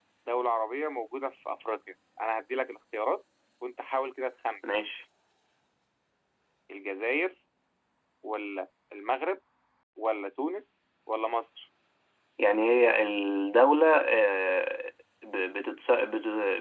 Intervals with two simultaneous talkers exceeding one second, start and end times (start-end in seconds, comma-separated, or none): none